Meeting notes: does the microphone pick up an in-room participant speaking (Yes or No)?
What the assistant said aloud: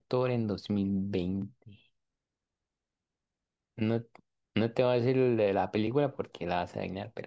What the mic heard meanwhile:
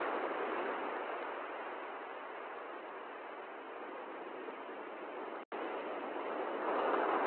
No